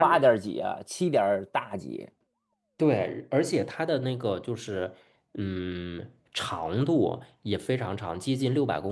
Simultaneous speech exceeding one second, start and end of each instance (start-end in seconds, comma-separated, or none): none